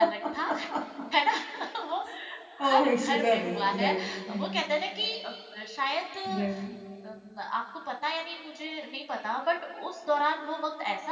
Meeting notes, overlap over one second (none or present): present